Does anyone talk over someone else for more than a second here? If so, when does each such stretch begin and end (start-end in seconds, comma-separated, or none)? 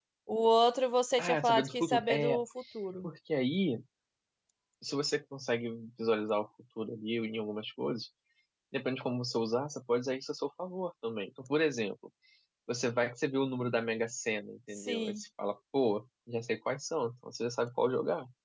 1.2-2.4